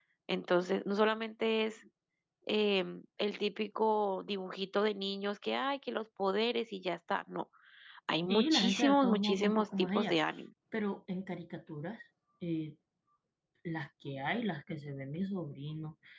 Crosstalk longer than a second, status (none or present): present